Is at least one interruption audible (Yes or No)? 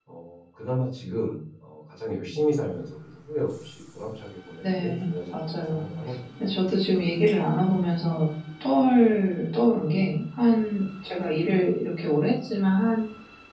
Yes